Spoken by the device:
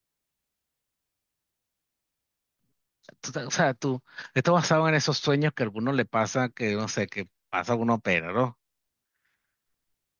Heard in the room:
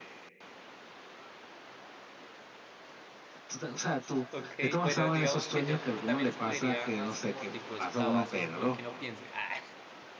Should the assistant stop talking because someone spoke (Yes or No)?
Yes